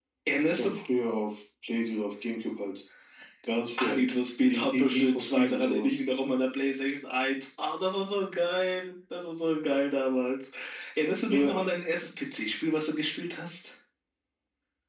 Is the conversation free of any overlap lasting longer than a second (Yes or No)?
No